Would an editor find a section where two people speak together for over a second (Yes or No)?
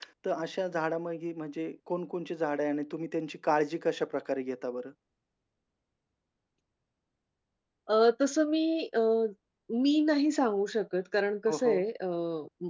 No